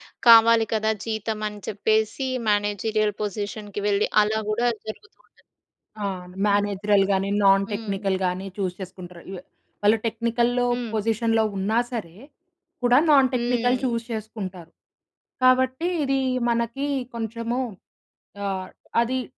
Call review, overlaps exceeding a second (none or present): none